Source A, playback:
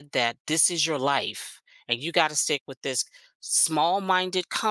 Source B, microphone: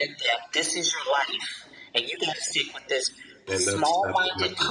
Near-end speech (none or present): present